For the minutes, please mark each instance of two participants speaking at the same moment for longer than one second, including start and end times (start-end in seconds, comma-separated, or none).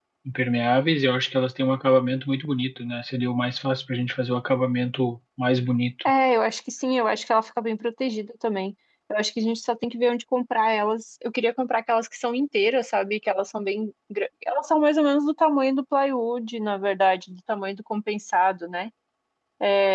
none